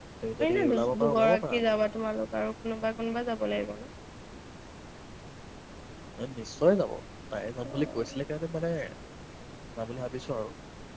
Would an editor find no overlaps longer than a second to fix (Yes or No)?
No